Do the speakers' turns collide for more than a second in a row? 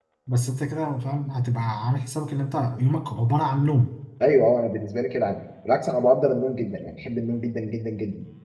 No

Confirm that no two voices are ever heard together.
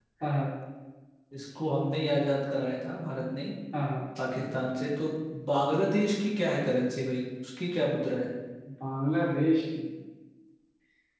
Yes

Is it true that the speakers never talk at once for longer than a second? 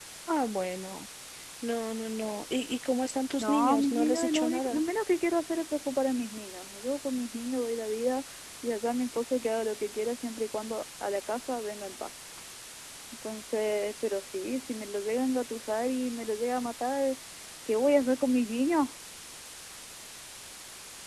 No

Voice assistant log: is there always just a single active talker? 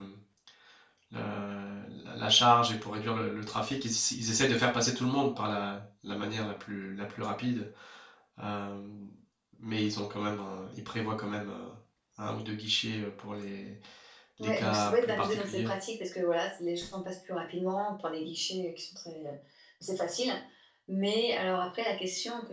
No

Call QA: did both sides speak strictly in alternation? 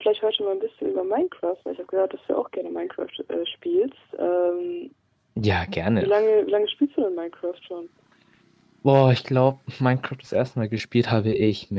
Yes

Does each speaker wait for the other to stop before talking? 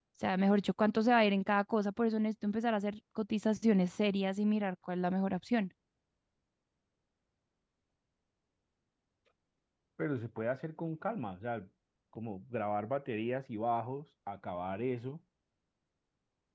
Yes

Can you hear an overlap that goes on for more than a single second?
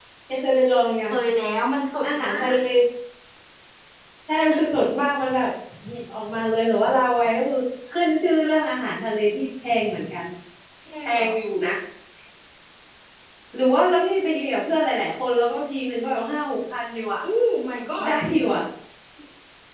No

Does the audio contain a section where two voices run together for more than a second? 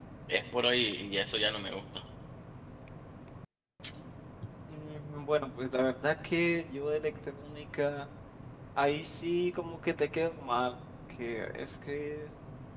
No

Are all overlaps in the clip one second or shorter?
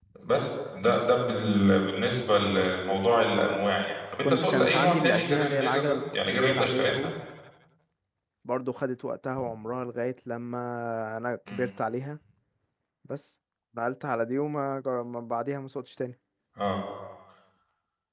No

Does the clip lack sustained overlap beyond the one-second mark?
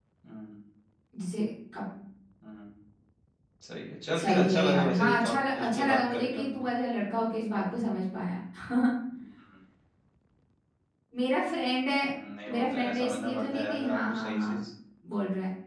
No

